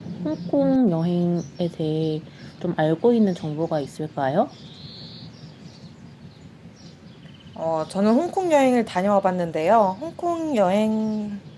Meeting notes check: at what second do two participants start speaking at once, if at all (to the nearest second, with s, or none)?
none